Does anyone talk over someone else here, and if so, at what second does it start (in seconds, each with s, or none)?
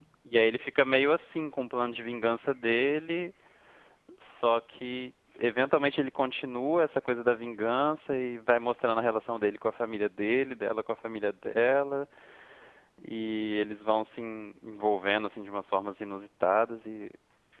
none